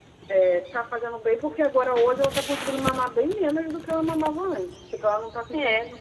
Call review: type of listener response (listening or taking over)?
listening